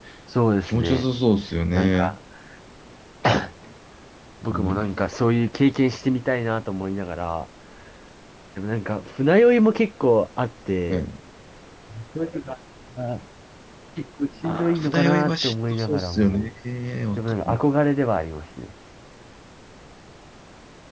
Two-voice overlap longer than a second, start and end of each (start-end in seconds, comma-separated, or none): 14.4-16.5